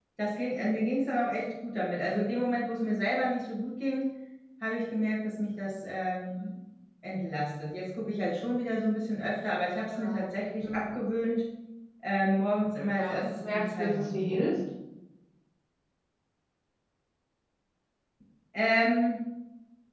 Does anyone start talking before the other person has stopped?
Yes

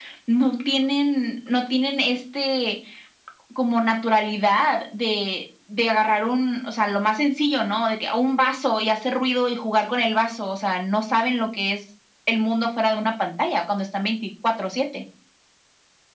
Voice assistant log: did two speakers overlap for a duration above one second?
No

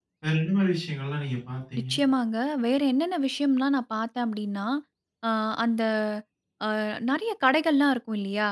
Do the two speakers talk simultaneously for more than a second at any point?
No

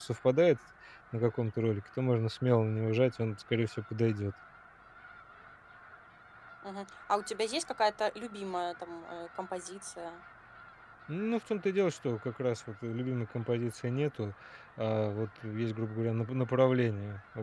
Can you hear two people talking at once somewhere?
No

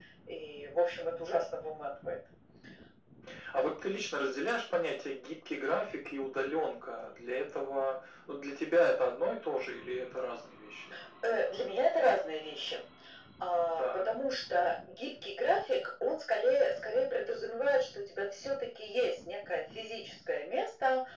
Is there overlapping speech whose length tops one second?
No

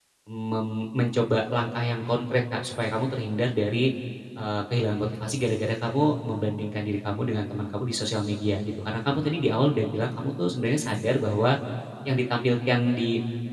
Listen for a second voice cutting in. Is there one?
No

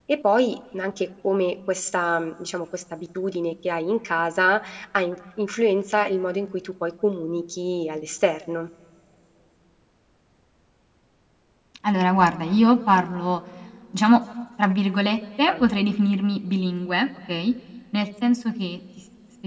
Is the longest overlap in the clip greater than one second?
No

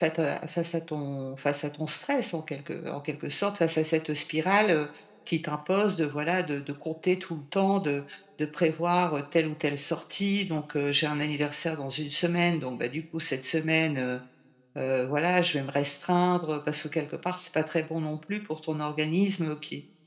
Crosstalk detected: No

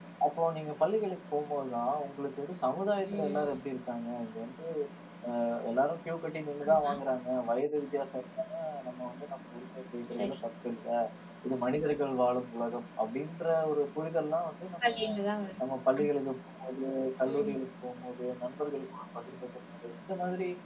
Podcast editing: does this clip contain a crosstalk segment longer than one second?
No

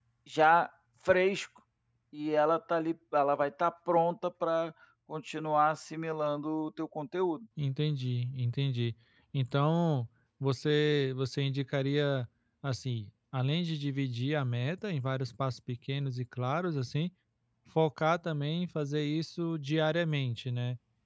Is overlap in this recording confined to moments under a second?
Yes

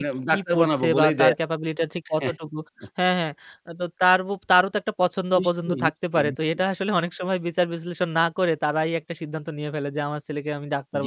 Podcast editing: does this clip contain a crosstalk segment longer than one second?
Yes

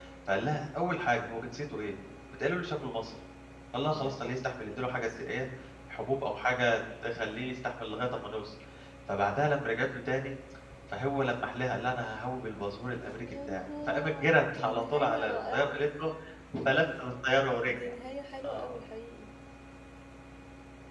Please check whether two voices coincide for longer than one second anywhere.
Yes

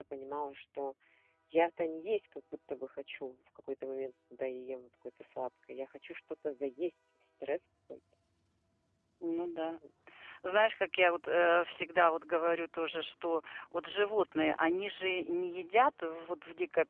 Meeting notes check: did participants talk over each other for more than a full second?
No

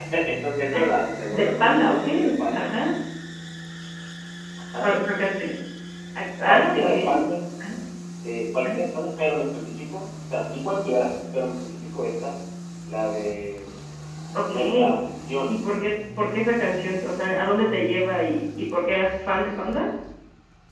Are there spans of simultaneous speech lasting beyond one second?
Yes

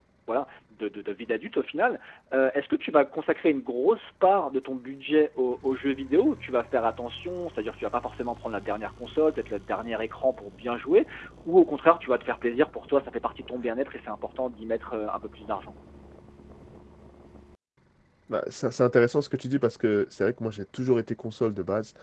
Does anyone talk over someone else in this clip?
No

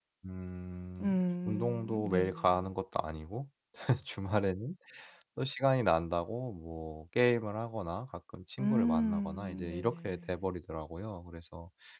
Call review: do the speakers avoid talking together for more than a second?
No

